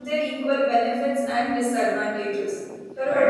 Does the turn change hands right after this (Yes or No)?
Yes